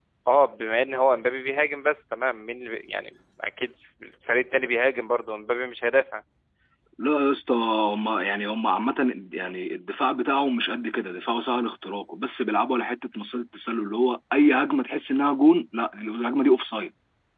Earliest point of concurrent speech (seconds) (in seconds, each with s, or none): none